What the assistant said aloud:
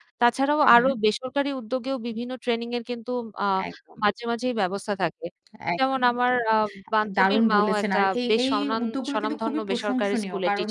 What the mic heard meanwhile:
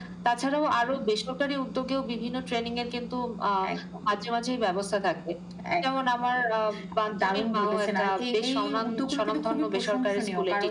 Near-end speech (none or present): none